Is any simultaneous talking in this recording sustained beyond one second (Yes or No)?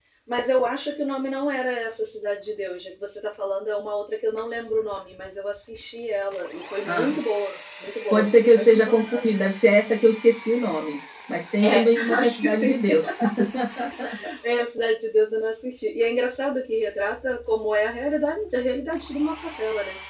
Yes